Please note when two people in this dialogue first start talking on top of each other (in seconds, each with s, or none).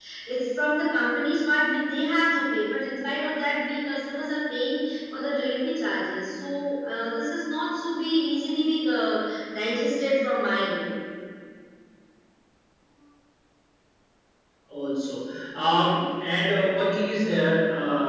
none